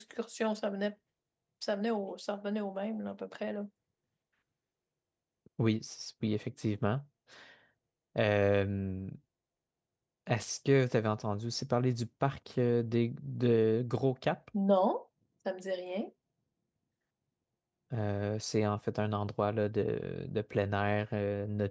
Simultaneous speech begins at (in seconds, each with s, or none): none